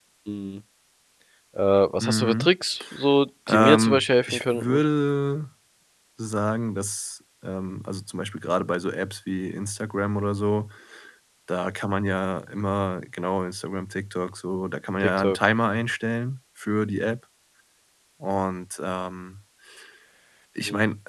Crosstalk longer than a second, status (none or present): present